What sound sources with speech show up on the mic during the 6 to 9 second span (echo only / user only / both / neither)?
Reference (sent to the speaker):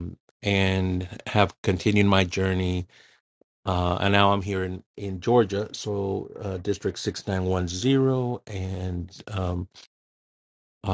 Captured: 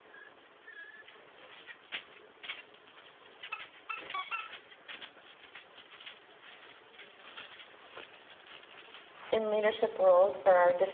neither